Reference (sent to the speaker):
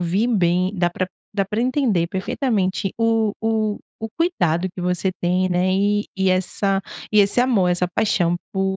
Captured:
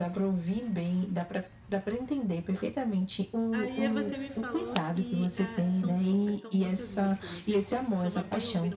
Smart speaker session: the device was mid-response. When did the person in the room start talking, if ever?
3.5 s

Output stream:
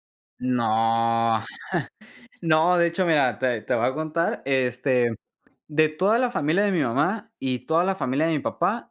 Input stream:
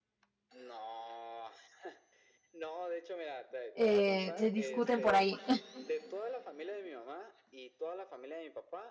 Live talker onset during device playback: 3.7 s

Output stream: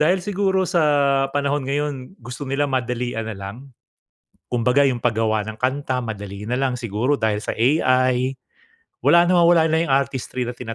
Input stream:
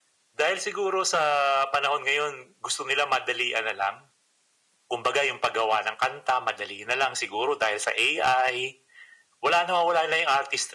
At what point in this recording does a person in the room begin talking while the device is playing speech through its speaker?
none

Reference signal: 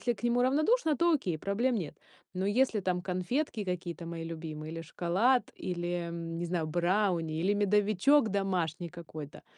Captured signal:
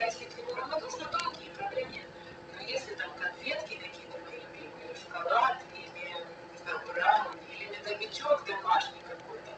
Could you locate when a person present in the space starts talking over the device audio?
none

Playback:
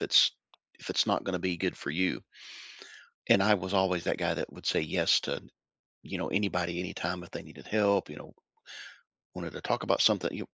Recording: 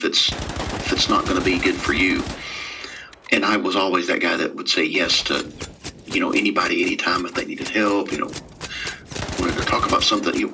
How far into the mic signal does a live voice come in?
none

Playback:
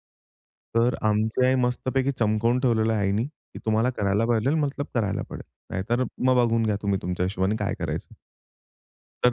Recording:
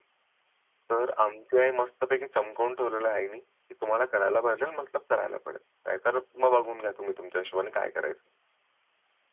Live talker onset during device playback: none

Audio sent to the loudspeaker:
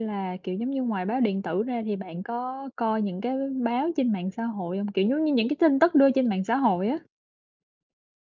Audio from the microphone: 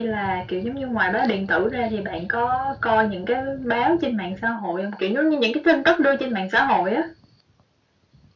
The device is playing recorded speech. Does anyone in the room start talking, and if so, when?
none

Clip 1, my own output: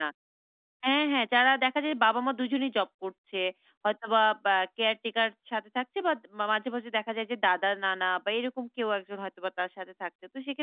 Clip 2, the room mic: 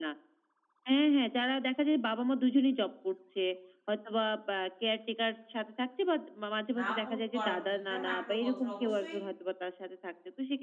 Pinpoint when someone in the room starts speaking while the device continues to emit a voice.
6.8 s

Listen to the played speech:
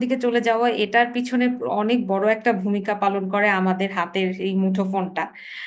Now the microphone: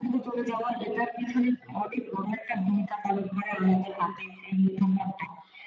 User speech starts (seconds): none

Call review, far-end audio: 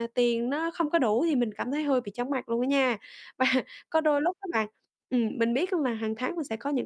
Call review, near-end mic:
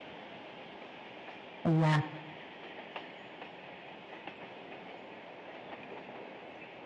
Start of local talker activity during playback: 1.6 s

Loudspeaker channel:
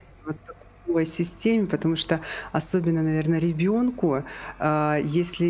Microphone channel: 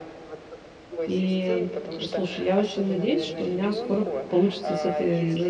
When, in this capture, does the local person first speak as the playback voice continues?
1.1 s

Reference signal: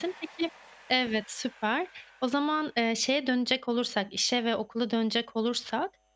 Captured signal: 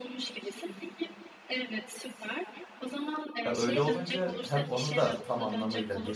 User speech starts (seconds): 3.5 s

